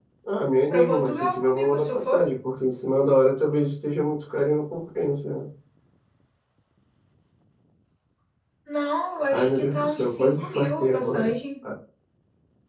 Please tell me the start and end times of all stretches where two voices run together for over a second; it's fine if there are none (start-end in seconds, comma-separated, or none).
0.7-2.2, 9.3-11.3